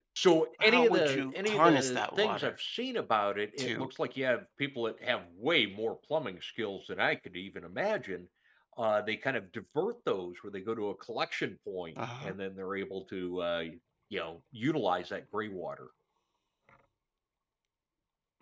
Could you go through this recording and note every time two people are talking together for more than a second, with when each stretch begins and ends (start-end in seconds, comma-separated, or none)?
0.6-2.5